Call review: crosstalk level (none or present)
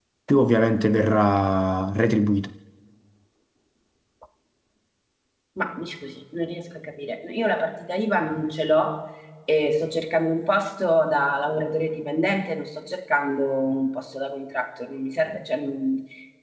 none